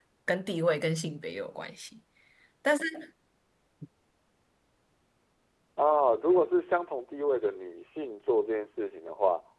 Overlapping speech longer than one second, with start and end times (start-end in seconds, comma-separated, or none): none